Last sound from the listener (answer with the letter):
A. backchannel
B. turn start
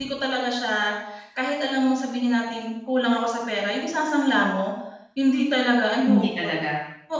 A